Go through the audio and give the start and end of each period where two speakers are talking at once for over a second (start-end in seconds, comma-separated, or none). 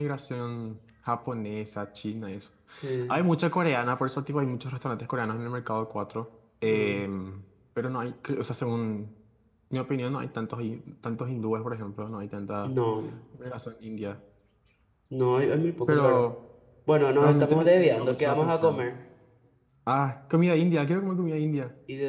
17.2-18.8